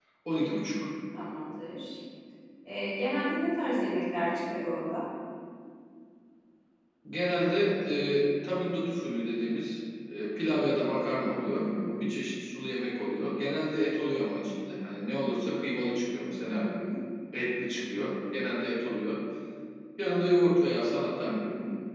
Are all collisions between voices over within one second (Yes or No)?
Yes